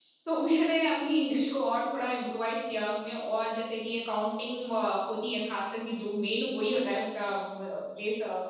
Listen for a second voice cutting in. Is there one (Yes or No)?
No